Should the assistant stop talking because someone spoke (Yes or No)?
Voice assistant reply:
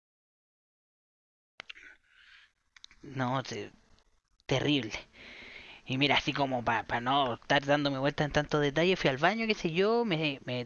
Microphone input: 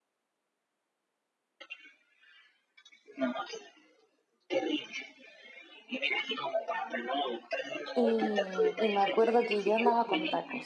Yes